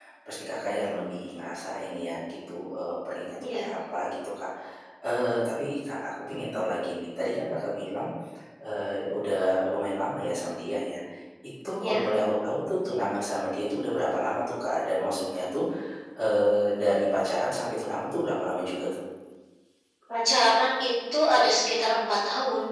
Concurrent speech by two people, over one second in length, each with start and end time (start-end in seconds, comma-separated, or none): none